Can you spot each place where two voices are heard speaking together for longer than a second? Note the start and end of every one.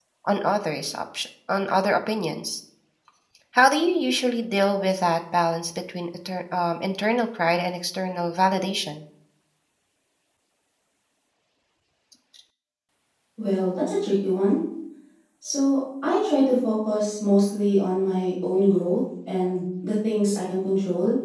none

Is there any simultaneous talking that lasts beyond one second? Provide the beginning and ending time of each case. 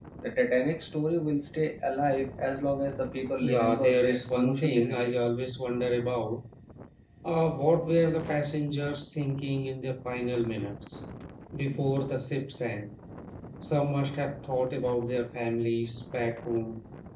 3.4-5.1

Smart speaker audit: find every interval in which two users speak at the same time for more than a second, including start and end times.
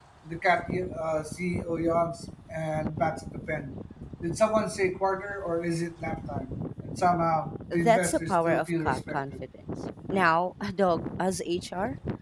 7.7-9.2

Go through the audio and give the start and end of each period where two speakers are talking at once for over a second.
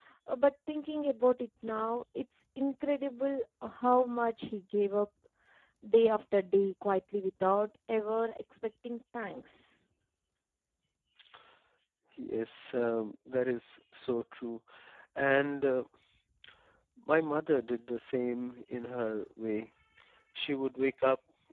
none

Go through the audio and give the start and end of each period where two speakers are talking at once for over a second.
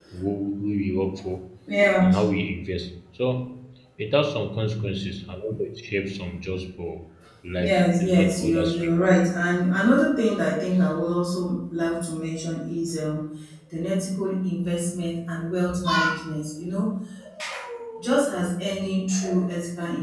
7.5-8.9

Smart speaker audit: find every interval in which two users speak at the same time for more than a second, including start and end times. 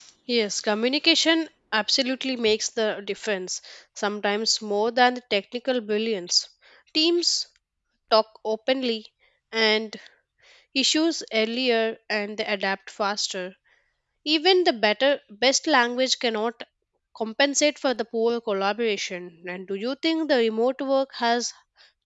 none

